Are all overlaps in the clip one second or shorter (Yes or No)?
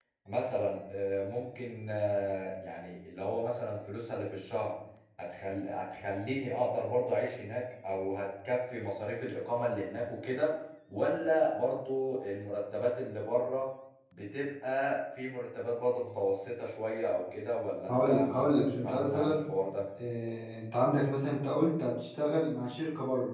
No